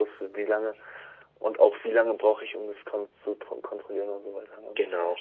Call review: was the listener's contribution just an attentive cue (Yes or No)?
No